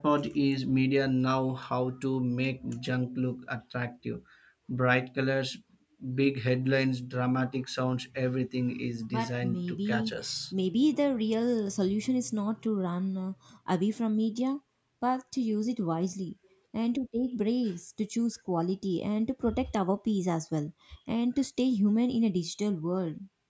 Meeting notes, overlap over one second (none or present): present